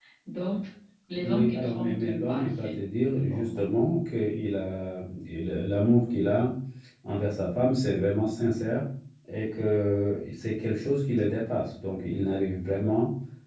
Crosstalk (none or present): present